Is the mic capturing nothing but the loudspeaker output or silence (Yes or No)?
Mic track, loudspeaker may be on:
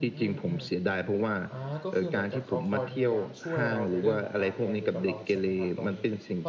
No